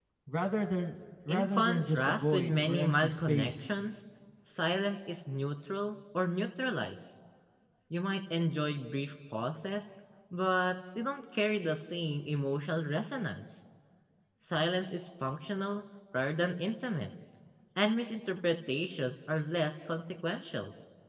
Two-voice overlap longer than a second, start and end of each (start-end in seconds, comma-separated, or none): 1.3-3.7